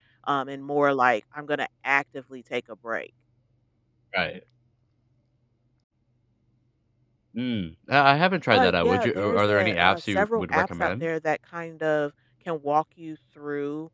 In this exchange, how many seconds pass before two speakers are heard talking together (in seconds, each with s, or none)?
8.5 s